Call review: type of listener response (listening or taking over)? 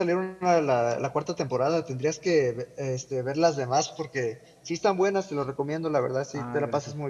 listening